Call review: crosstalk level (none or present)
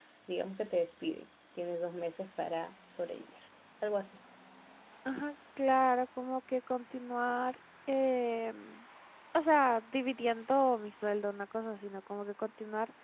none